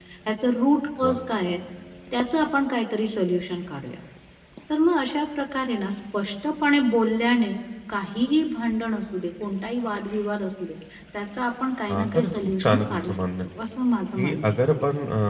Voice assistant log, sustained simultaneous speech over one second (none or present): present